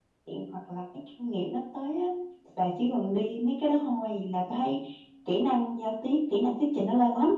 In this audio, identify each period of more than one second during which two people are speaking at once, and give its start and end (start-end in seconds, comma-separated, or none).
none